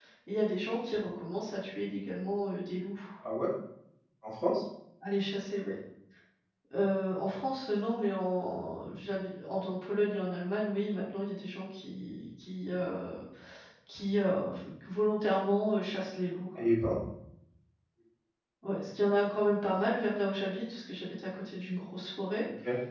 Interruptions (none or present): none